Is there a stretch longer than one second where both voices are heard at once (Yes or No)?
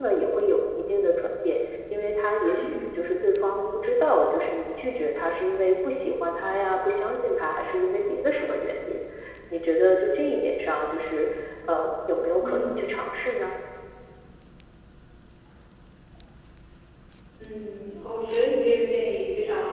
No